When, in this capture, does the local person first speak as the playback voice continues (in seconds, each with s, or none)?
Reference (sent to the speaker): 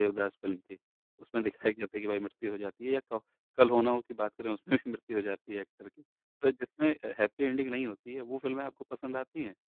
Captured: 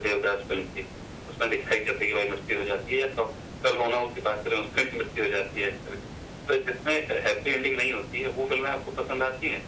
none